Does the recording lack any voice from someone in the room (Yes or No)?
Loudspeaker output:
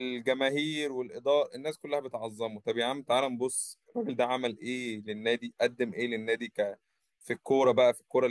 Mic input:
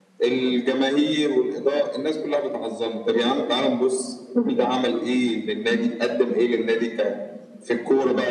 Yes